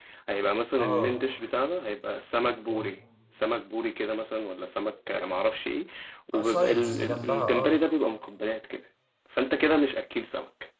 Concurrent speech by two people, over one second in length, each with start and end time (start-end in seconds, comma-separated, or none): 6.3-7.8